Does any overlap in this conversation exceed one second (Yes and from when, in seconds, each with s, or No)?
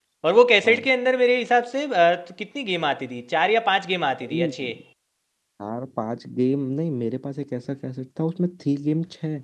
No